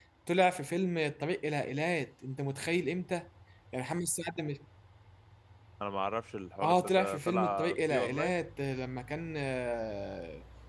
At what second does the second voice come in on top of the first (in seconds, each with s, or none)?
6.6 s